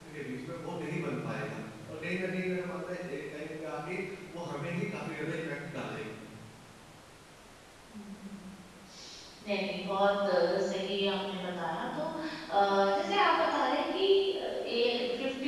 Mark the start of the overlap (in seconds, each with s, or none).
none